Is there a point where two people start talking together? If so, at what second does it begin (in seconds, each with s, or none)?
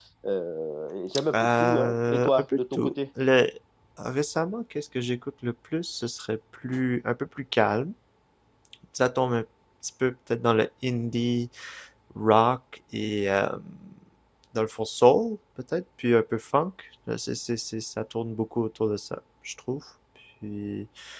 1.3 s